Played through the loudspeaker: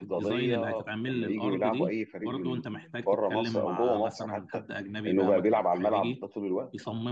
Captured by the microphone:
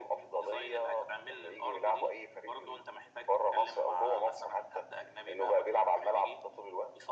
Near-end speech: none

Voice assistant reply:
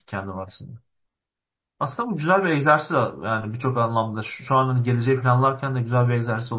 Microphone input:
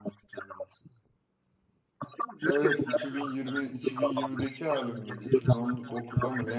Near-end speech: present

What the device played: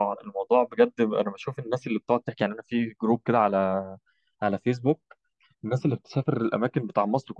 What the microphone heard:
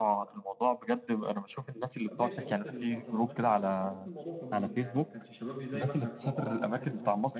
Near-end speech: present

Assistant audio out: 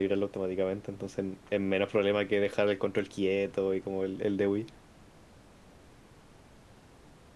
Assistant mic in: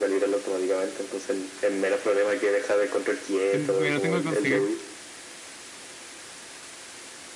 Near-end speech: present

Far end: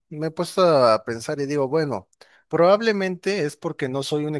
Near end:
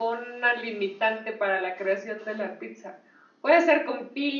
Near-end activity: present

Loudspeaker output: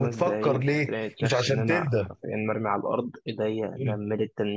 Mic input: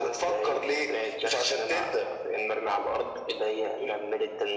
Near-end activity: none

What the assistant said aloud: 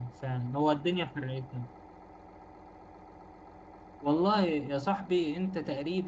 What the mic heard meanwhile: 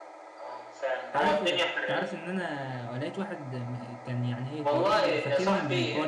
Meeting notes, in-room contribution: present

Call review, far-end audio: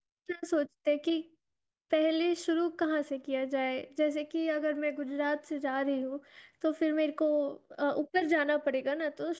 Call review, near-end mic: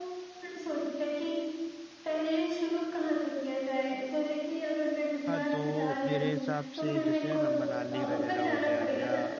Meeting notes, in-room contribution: present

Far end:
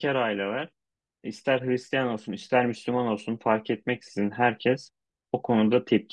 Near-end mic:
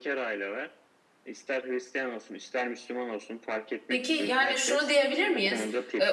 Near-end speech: present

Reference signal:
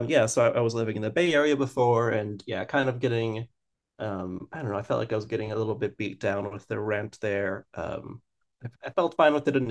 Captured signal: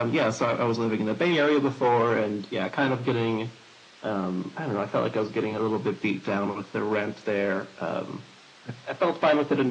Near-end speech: none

